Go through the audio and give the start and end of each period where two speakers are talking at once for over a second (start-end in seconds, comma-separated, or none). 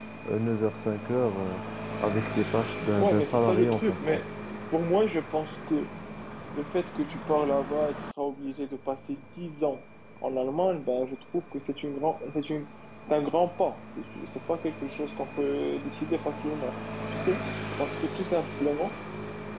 3.0-4.2